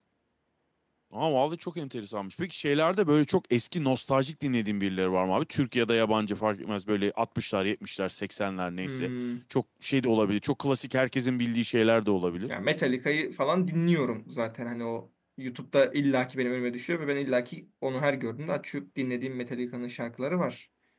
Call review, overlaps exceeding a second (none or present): none